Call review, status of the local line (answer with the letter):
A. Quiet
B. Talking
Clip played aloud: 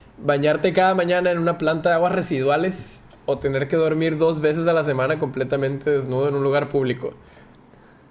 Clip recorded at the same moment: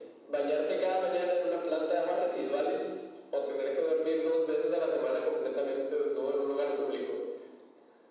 A